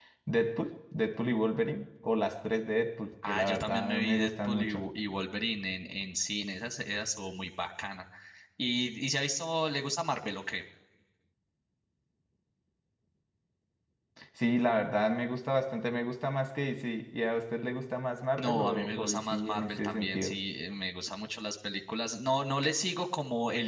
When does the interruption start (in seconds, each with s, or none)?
3.2 s